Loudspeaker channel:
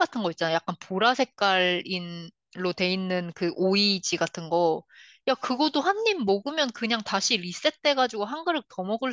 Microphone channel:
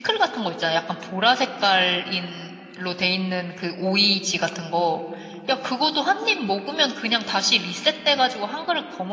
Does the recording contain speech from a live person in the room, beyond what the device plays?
No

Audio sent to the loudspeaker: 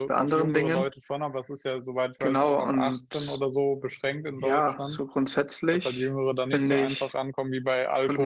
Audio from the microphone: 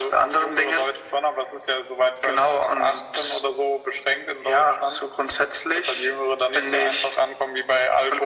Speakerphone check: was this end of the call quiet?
Yes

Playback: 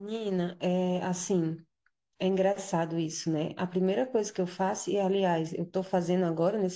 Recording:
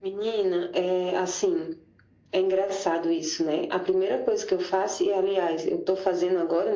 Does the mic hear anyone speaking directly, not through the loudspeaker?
No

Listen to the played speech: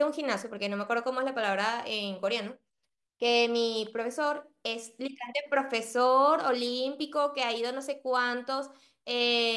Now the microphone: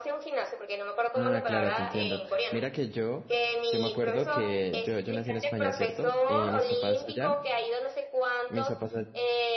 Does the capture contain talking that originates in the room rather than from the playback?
Yes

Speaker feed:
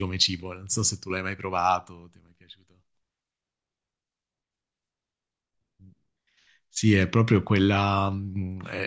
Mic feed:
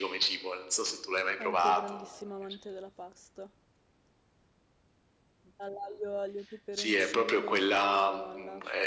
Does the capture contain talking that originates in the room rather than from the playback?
Yes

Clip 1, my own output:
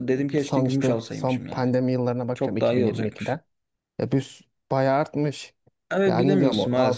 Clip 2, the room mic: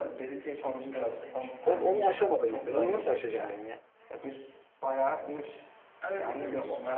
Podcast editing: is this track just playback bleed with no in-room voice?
No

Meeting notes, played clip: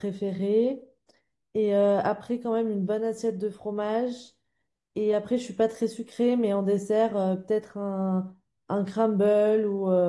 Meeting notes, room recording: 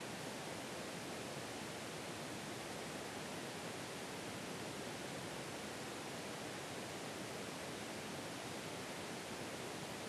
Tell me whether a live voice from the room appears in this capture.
No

